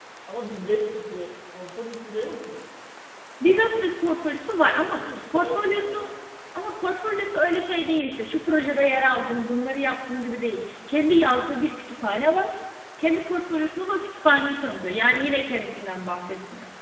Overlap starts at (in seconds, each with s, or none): 4.7 s